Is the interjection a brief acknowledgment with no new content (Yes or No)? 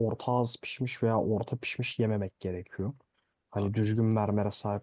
Yes